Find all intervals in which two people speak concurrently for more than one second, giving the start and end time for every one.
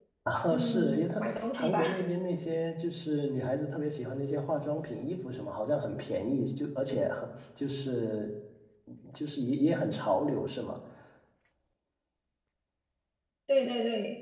0.5-2.0

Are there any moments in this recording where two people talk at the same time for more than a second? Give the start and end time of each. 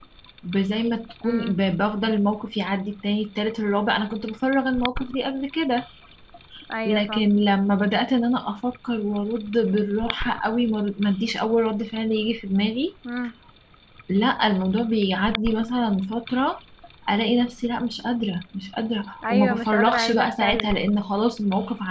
19.3-20.8

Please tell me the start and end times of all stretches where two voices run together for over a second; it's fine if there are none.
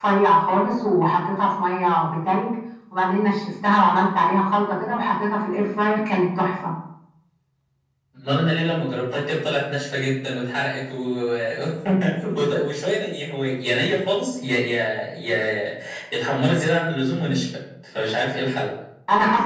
none

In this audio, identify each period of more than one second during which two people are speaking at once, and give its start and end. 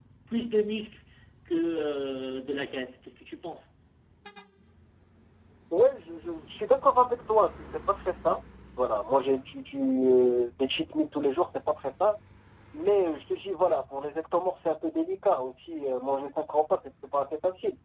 none

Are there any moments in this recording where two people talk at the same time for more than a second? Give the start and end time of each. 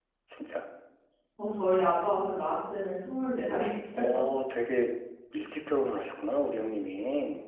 none

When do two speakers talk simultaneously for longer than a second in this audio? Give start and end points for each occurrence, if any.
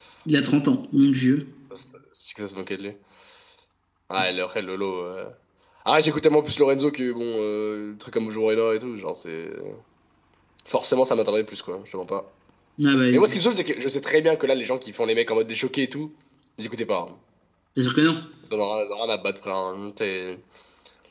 none

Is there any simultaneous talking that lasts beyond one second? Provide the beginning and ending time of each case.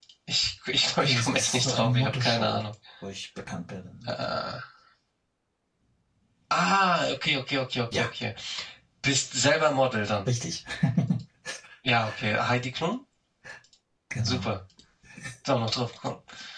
0.9-2.6

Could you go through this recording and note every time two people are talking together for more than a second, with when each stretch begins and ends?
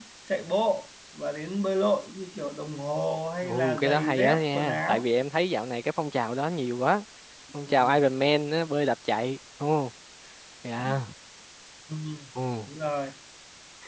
3.4-5.0

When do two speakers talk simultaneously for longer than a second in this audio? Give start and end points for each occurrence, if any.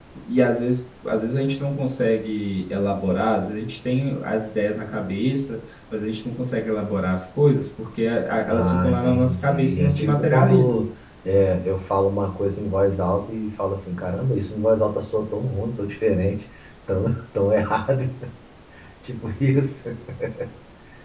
8.5-10.8

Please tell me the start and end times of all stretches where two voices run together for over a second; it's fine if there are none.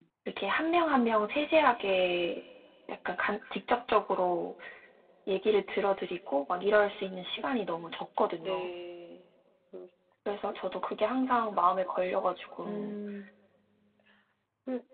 none

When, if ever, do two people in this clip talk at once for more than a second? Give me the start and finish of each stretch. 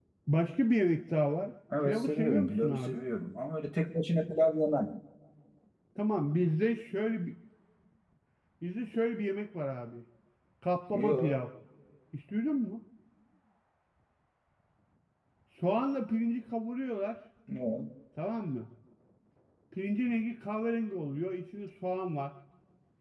1.8-3.0

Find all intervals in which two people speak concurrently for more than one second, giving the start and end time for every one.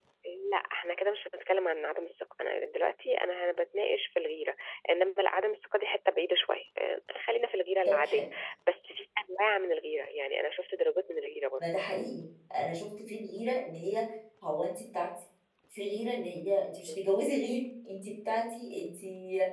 none

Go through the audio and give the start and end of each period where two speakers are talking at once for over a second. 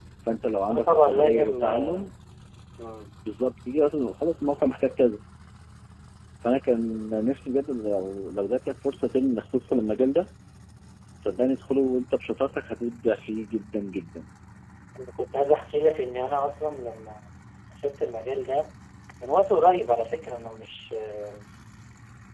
0.7-2.0

